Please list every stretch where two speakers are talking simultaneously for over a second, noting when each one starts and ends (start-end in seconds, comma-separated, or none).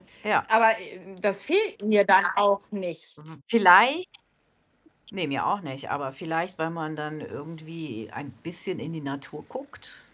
none